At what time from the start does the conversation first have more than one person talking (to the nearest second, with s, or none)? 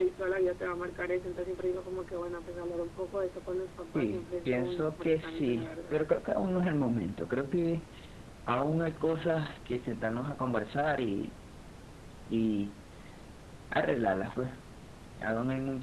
4 s